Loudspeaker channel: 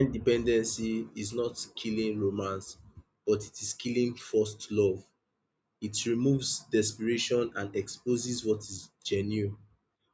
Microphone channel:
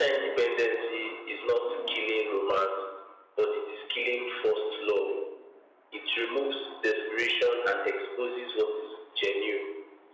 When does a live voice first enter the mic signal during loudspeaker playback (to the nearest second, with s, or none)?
none